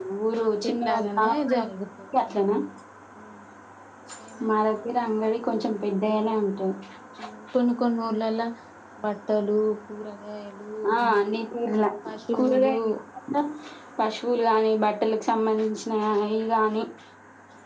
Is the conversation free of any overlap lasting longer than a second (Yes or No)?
No